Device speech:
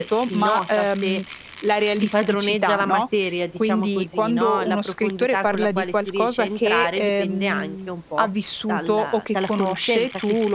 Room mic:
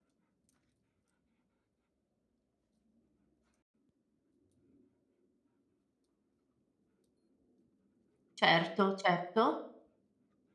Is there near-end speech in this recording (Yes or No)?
Yes